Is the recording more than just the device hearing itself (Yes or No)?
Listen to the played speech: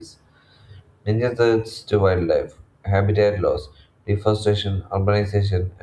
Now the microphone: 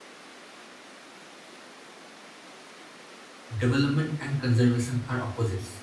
Yes